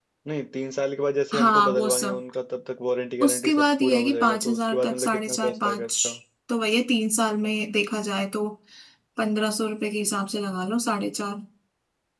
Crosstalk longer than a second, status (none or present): present